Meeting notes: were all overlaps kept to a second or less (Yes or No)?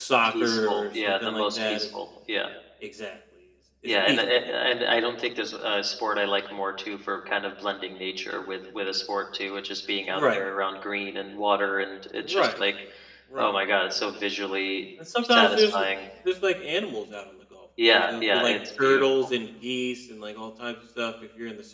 No